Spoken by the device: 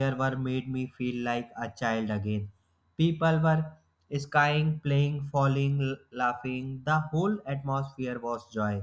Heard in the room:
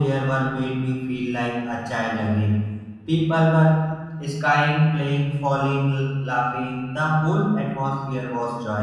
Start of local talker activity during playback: none

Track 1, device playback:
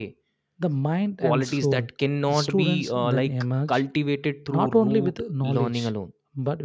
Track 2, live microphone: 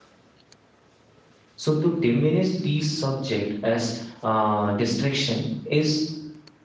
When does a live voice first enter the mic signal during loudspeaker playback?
2 s

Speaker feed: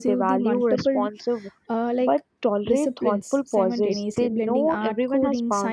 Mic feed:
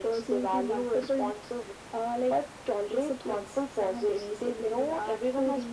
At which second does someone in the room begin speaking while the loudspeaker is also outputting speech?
none

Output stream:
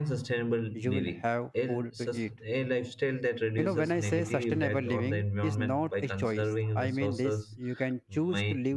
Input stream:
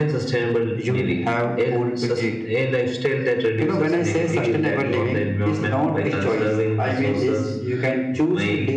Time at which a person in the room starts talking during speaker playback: none

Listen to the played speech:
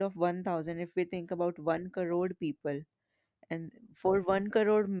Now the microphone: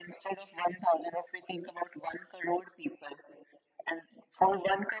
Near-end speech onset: none

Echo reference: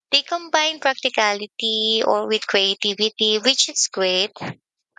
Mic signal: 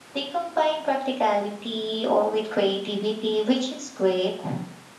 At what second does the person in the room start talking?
none

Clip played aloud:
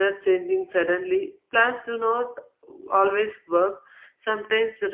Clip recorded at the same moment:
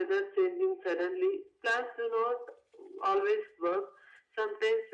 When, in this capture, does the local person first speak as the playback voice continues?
none

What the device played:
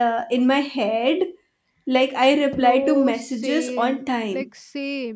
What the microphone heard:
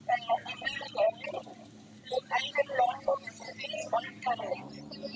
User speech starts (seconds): none

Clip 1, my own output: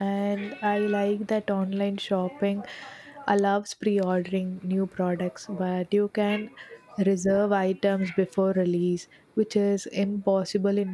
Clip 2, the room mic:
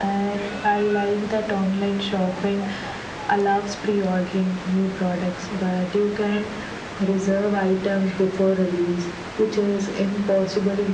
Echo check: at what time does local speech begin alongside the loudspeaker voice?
none

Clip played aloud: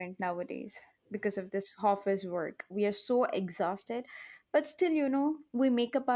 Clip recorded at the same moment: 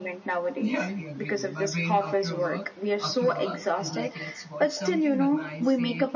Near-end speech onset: 1 s

